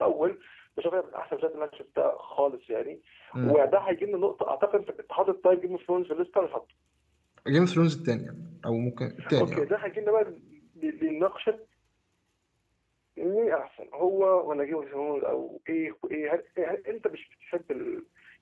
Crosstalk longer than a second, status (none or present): none